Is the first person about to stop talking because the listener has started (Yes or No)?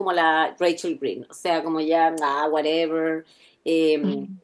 No